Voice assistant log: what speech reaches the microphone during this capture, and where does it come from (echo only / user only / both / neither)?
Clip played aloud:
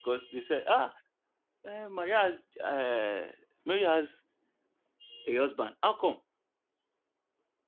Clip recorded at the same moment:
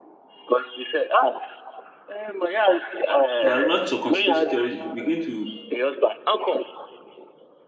both